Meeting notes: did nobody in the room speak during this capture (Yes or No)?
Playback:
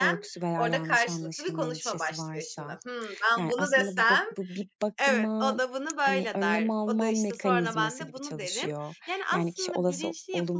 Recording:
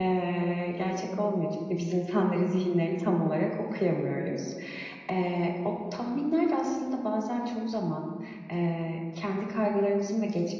No